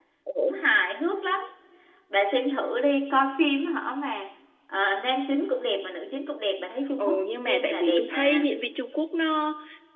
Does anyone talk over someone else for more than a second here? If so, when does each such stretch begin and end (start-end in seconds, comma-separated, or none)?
7.0-8.5